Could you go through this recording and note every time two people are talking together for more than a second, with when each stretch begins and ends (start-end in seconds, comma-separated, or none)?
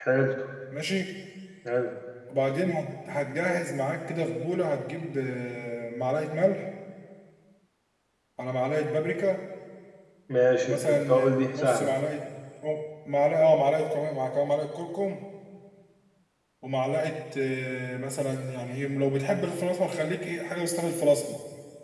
10.6-11.9